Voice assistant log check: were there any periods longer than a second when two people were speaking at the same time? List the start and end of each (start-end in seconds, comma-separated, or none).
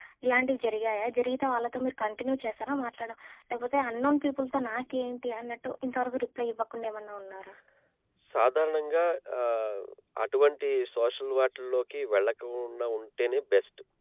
none